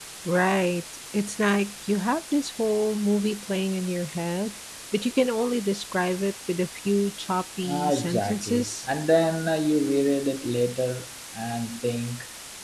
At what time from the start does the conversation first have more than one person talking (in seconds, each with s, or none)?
7.6 s